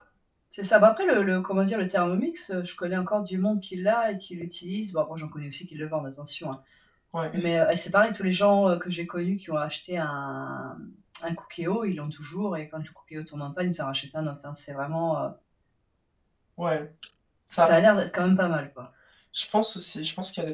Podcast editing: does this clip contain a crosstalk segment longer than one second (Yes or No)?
No